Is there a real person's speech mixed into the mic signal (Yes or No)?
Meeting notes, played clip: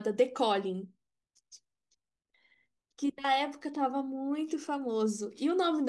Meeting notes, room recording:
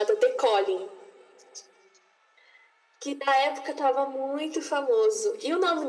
No